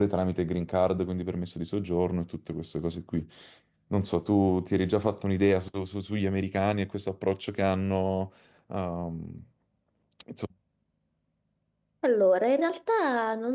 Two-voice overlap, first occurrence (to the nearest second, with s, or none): none